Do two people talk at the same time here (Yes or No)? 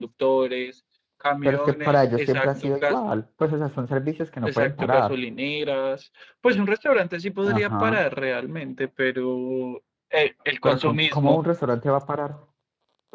Yes